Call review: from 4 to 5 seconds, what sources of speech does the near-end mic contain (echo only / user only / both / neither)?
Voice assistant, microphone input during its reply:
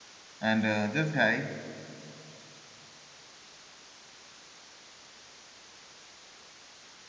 neither